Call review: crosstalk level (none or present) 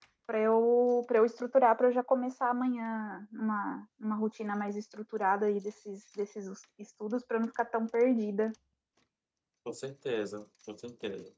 none